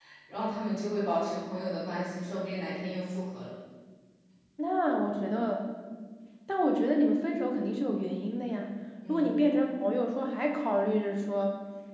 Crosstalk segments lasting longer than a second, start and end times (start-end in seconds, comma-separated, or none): none